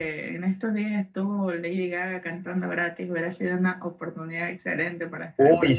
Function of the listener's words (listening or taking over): taking over